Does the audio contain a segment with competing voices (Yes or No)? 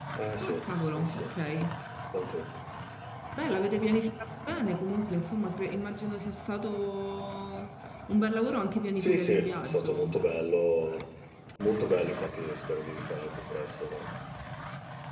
Yes